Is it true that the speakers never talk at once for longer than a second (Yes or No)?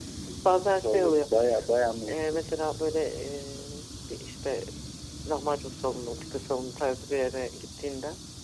Yes